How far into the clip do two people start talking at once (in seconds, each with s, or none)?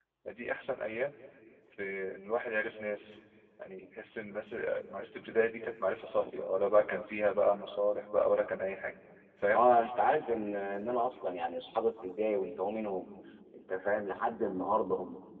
none